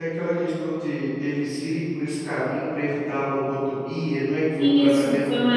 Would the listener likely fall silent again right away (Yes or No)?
No